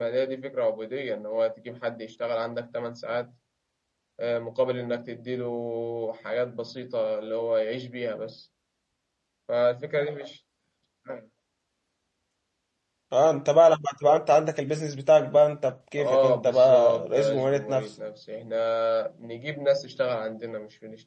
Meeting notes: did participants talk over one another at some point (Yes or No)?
Yes